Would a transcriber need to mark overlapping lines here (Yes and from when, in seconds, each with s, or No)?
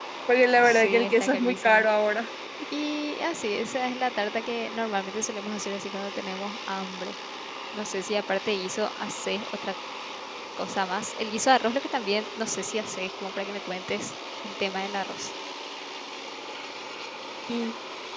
Yes, from 0.6 s